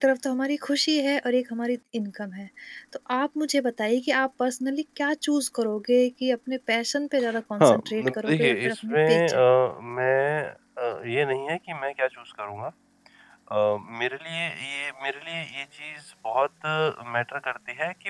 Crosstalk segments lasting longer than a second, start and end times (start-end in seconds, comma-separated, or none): 7.6-9.4